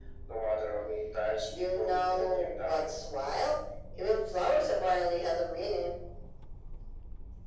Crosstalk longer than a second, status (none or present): present